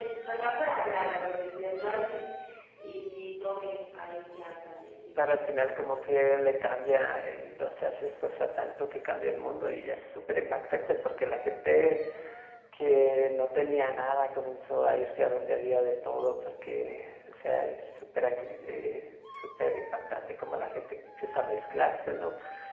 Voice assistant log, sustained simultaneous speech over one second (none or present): none